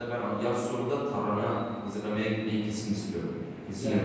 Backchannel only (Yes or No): No